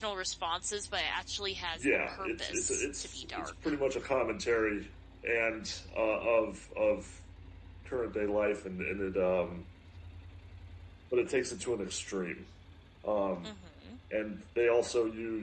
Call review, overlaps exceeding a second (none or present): present